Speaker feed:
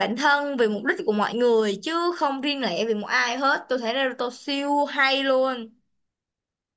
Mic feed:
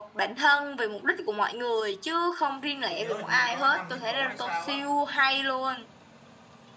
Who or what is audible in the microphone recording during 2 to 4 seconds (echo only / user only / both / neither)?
both